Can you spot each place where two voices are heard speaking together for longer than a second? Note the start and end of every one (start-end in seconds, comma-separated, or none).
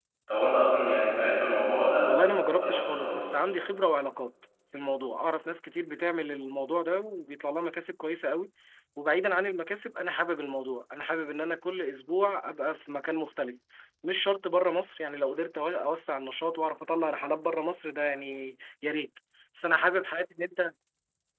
2.0-3.4